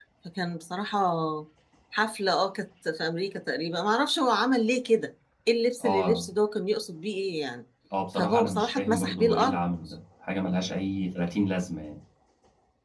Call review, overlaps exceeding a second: present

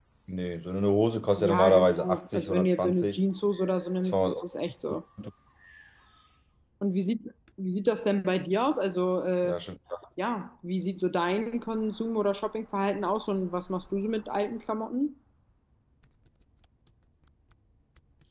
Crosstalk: present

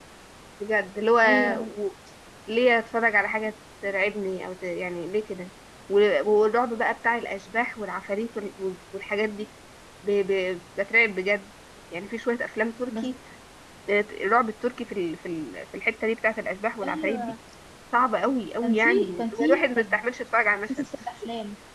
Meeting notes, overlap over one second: present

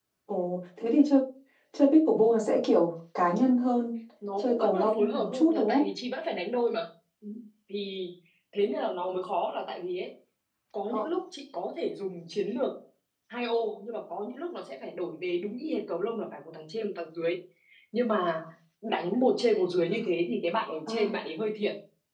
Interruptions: present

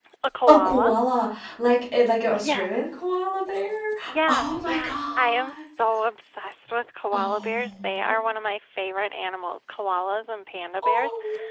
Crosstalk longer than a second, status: present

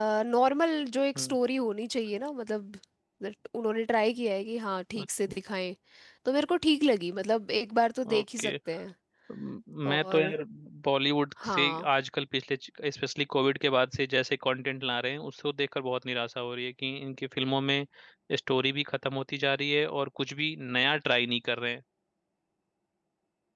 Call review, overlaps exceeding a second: none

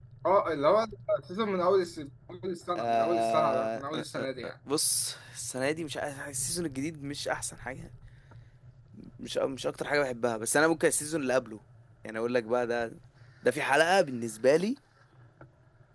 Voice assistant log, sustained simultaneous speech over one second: present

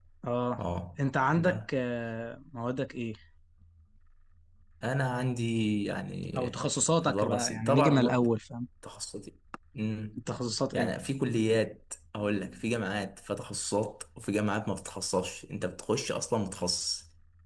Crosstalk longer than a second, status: present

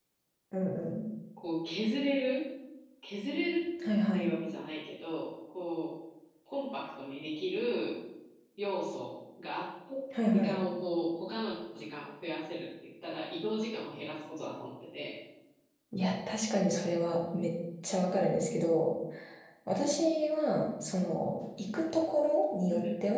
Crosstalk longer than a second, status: none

